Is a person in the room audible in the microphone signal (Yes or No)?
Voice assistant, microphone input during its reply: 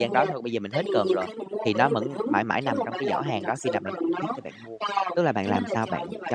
Yes